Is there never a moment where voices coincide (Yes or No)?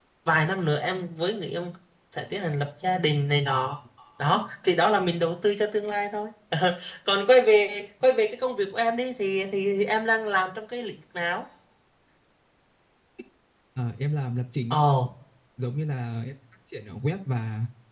Yes